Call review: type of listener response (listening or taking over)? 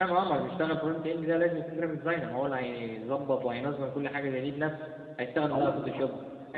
listening